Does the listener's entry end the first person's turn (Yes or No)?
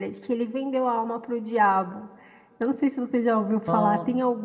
No